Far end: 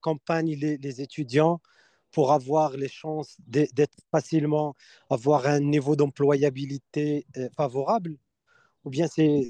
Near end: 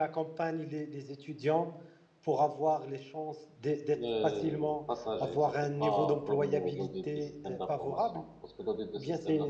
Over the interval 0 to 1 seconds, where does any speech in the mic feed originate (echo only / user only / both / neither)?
echo only